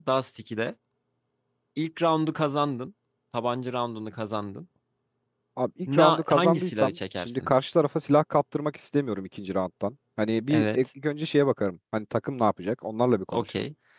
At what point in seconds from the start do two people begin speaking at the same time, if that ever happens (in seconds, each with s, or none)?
5.9 s